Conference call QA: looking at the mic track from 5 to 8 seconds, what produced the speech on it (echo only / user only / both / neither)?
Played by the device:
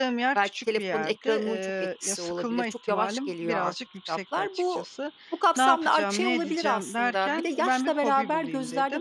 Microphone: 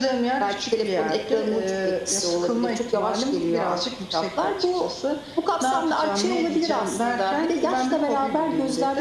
echo only